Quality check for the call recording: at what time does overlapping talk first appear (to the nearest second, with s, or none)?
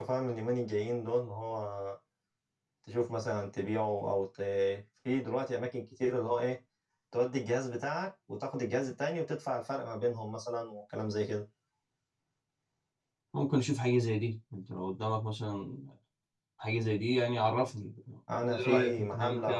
18 s